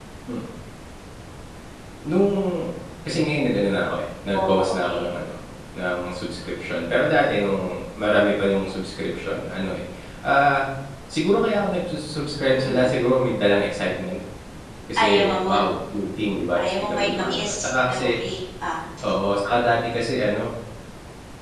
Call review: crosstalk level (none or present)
present